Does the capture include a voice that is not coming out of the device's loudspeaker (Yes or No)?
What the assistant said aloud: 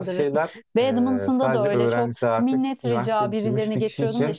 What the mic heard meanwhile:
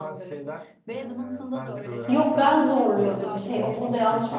Yes